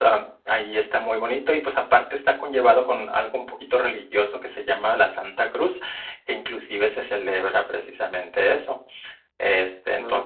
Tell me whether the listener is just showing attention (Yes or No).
Yes